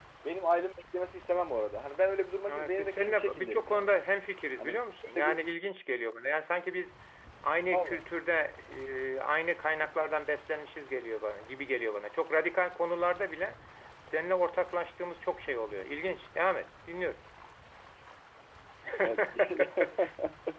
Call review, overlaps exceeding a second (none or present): present